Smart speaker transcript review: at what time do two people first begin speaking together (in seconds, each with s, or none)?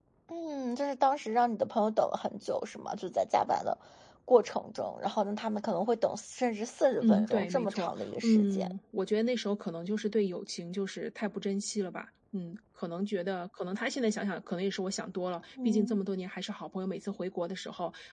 7.0 s